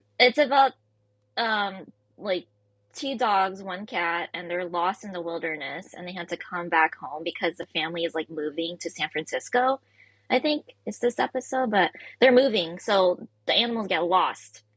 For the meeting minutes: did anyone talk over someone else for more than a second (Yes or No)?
No